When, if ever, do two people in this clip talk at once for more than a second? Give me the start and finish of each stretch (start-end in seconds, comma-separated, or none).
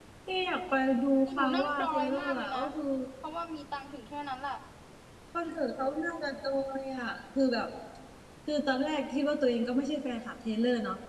1.3-2.6